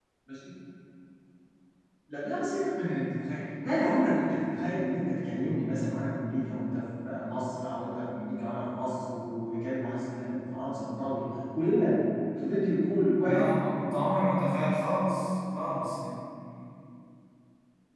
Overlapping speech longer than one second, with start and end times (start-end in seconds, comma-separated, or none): none